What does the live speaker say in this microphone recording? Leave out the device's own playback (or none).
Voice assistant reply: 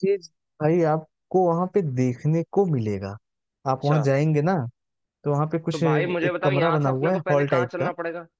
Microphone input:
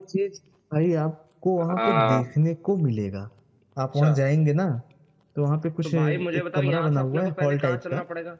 अ,